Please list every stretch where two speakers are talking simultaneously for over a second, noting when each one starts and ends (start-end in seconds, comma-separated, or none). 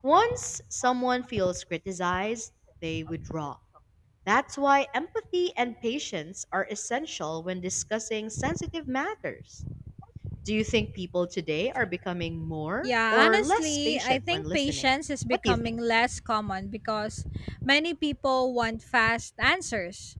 12.8-14.8